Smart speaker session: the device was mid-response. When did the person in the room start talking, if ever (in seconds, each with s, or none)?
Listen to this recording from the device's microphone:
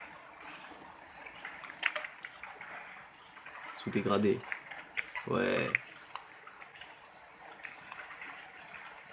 3.7 s